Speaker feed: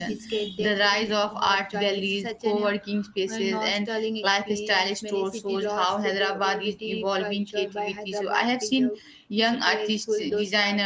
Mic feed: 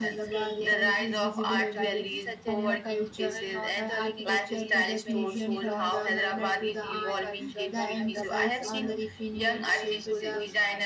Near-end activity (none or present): present